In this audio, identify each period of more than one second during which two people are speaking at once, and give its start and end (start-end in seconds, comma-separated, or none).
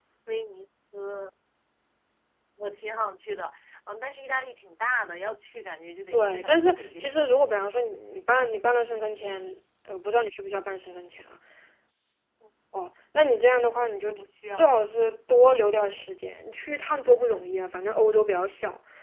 6.1-7.7